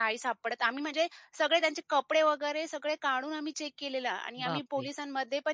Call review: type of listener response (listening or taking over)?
listening